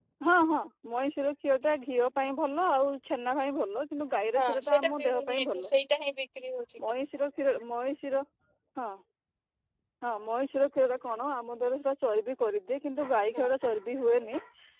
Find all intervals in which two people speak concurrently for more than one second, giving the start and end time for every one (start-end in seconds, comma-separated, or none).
4.4-5.7